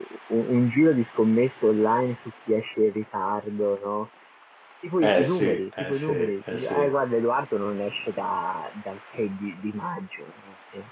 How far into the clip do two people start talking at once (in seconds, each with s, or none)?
5.0 s